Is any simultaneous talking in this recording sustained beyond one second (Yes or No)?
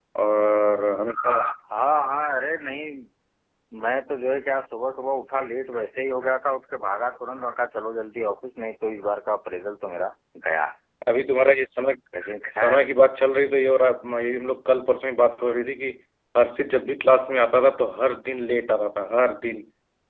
No